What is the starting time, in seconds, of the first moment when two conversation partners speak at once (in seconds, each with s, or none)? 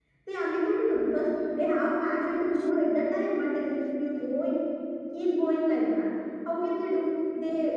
none